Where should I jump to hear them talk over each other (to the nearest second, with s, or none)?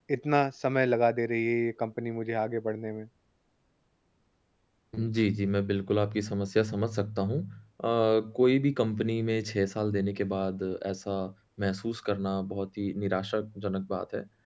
none